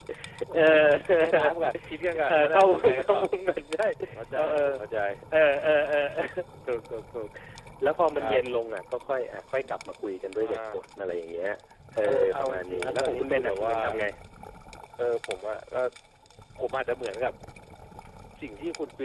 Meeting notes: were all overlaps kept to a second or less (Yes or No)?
No